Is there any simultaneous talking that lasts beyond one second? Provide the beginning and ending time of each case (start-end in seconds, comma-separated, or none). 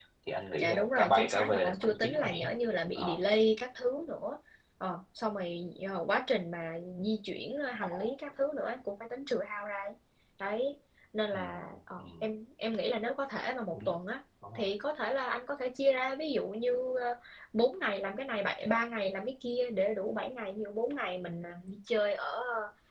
0.6-2.5